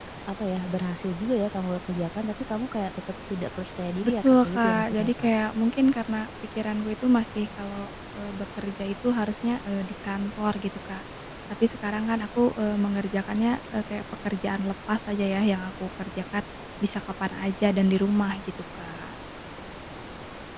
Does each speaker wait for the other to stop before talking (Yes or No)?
No